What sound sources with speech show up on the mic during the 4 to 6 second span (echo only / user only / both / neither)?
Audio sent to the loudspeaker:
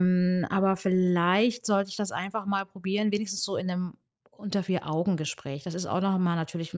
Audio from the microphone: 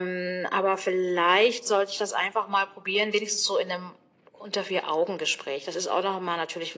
echo only